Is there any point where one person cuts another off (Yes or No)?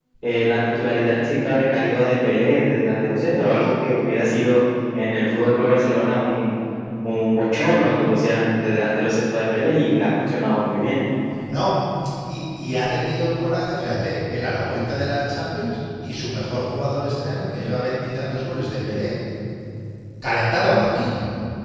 No